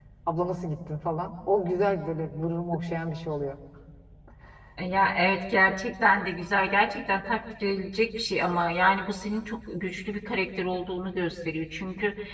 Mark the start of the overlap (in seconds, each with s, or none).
none